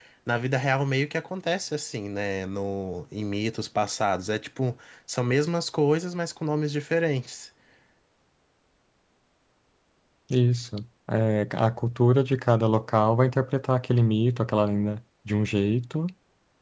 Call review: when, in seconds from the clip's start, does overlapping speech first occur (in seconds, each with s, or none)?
none